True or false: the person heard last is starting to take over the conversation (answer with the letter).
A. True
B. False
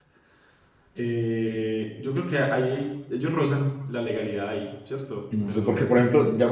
A